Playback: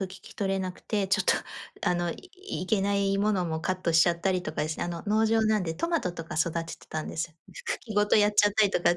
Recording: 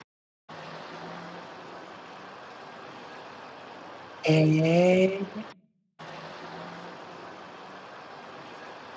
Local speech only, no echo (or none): へえ。